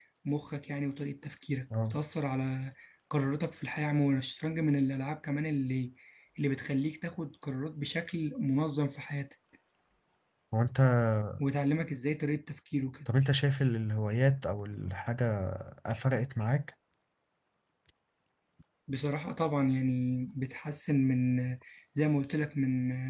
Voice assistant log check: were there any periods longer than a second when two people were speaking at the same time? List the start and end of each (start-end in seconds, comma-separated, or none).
none